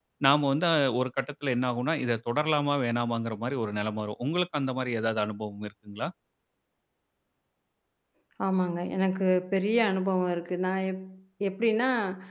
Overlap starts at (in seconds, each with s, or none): none